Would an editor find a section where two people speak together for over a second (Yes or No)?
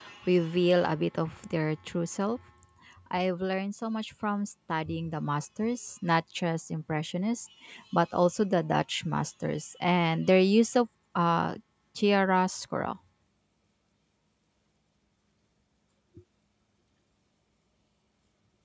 No